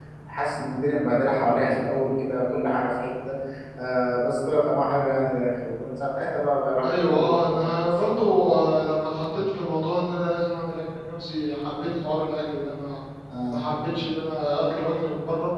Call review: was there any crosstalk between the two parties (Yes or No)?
Yes